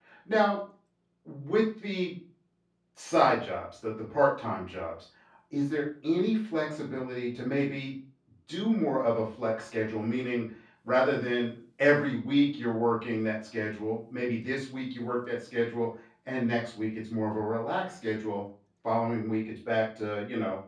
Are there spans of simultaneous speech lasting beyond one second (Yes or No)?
No